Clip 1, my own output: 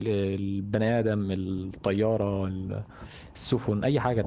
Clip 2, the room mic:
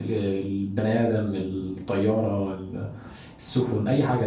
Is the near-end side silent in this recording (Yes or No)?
Yes